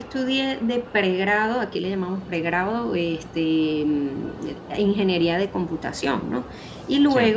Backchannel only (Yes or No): Yes